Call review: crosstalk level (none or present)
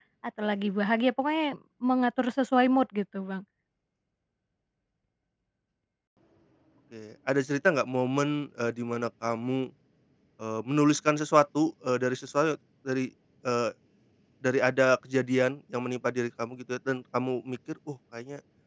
none